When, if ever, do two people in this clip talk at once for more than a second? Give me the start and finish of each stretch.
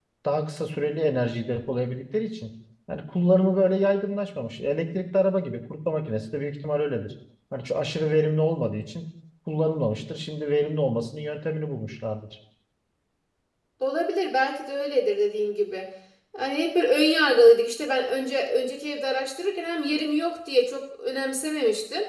none

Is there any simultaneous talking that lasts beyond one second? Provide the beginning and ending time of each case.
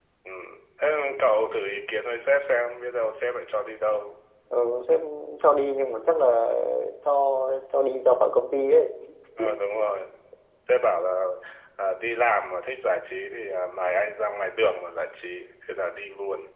none

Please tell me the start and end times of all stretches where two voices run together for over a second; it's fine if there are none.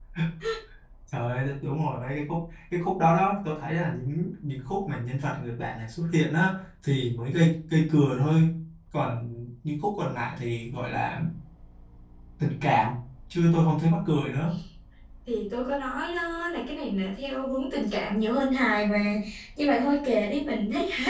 none

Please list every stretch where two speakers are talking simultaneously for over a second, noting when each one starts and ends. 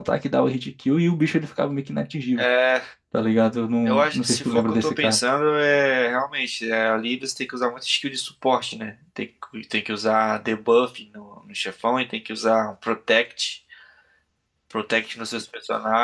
3.9-5.2

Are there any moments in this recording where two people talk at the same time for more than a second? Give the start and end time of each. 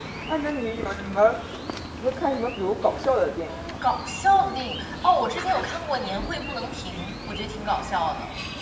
none

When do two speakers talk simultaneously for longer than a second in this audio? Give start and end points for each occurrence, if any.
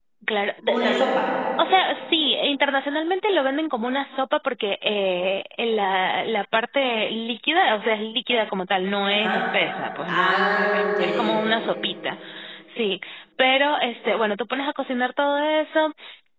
10.1-11.3

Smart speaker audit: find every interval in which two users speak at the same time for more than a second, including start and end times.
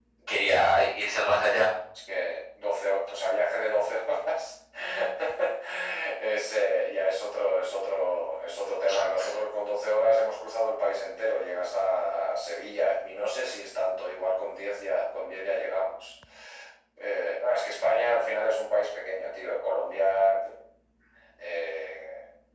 none

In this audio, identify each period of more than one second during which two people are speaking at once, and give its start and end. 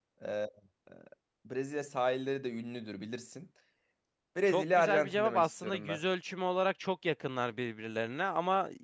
4.5-6.0

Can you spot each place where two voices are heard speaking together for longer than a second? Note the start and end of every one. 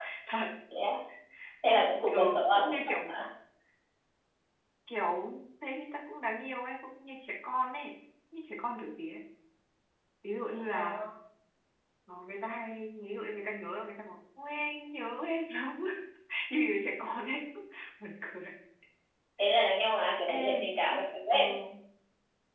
1.6-3.1

